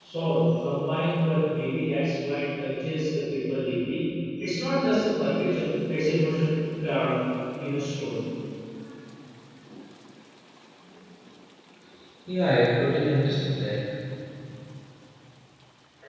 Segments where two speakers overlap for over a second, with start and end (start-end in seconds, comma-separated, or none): none